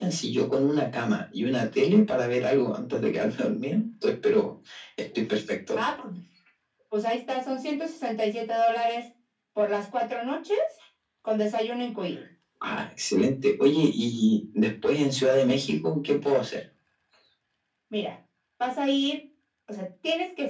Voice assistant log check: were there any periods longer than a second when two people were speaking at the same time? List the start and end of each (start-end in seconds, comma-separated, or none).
none